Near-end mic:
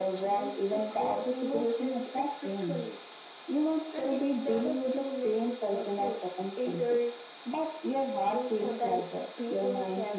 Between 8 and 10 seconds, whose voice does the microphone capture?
echo only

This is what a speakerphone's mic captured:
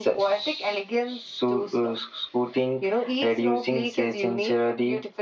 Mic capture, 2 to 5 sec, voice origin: echo only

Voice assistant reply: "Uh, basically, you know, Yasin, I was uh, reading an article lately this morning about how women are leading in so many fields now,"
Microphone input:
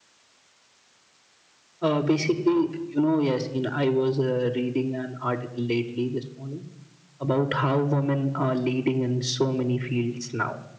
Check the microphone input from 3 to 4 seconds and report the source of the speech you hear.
echo only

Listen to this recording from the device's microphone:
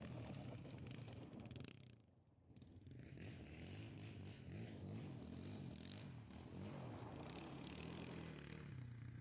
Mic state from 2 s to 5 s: neither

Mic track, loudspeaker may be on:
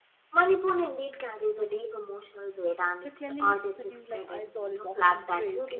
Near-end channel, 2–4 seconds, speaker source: both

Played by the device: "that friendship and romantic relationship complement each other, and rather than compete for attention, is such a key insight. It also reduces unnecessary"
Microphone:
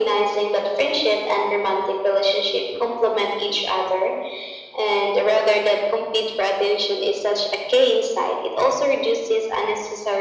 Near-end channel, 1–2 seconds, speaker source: echo only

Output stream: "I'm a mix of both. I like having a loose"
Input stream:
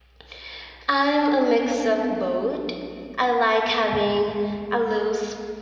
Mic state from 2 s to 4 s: echo only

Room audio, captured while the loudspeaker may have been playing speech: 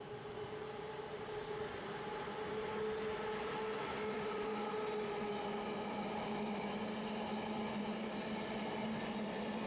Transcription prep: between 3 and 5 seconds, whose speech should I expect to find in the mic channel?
neither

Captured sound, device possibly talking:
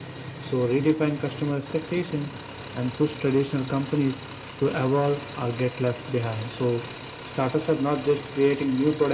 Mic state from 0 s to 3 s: echo only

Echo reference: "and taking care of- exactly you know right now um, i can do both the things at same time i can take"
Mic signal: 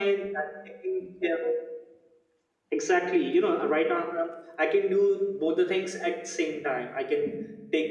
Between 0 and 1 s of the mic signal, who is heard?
echo only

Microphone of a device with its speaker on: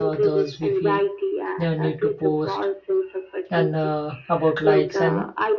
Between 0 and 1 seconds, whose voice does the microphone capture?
both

